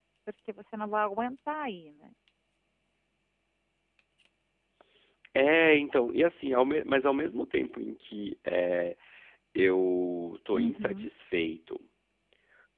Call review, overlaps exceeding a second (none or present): none